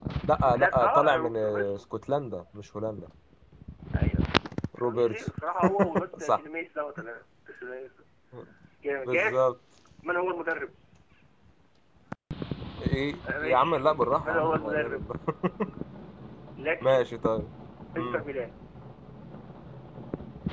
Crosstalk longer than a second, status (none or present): present